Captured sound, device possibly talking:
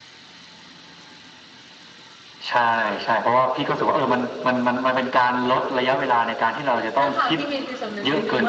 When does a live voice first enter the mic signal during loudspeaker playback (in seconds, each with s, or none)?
7.0 s